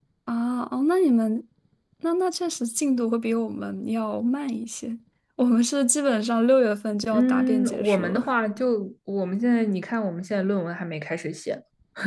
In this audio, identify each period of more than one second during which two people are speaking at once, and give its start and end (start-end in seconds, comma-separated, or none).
7.1-8.3